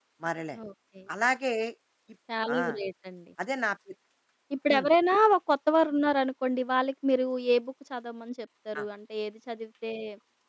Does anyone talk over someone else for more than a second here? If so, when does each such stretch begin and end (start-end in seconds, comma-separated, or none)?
none